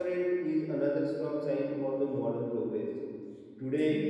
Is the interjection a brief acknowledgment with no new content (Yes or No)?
Yes